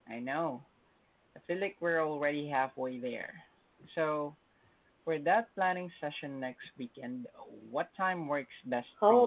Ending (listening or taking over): taking over